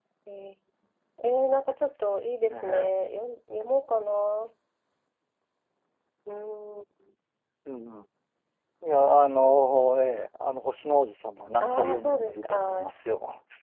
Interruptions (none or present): present